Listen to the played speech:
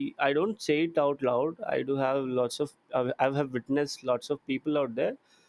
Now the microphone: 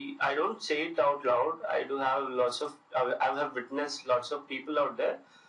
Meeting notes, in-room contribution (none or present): none